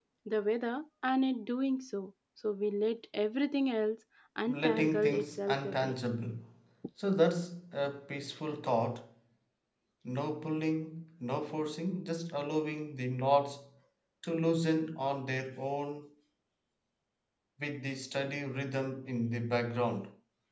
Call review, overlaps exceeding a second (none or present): present